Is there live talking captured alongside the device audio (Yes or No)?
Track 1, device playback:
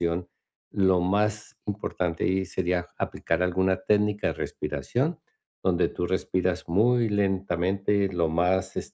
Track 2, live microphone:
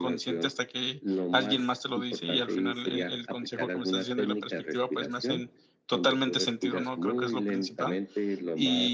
Yes